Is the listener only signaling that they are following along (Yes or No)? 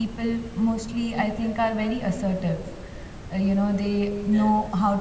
Yes